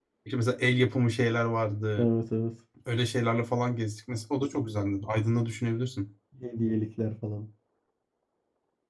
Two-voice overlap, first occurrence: none

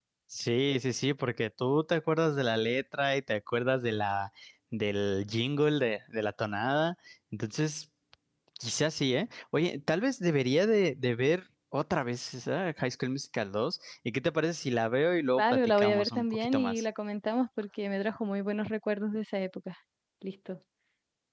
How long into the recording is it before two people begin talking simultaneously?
15.4 s

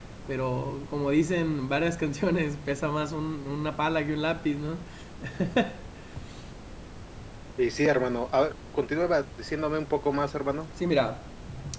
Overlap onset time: none

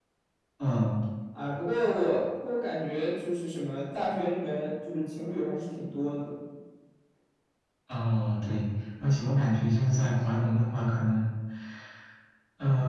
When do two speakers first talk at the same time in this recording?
none

